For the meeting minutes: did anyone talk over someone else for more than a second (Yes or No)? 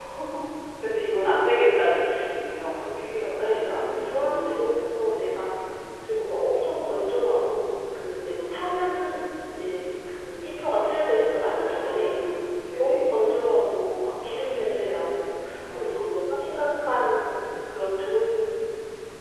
Yes